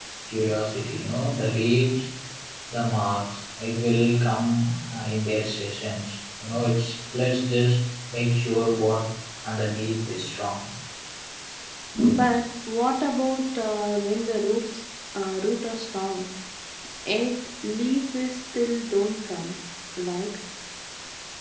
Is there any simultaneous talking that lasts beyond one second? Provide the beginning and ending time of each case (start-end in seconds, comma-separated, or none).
none